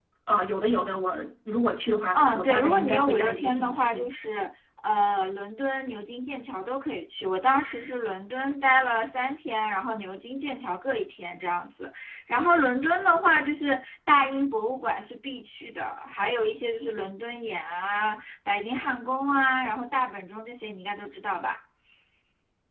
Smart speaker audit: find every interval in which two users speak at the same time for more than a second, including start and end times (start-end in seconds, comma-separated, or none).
2.1-4.1